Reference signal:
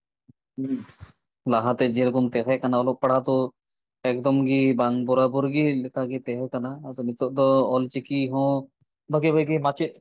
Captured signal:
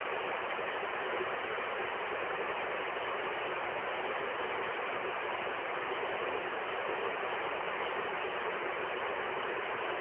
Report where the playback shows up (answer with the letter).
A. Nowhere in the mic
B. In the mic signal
A